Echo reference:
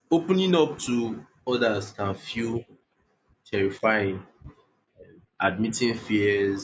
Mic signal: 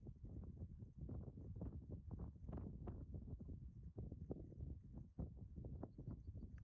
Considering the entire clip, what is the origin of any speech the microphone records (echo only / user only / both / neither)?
neither